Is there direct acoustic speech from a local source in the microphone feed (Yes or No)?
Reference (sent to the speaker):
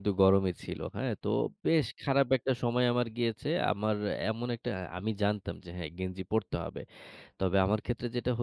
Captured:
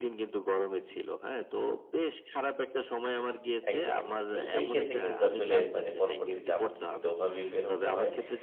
Yes